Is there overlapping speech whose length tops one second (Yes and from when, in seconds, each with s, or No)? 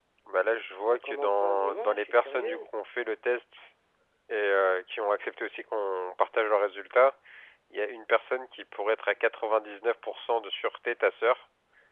Yes, from 0.9 s